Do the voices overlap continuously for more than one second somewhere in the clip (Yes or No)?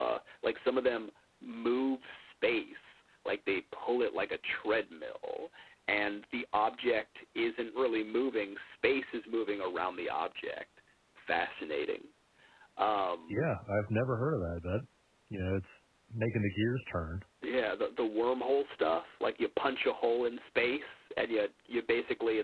No